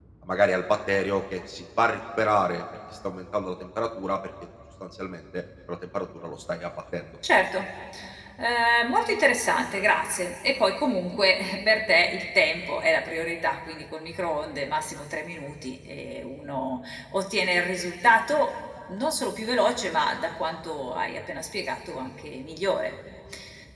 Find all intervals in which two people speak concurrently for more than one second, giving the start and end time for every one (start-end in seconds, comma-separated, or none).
none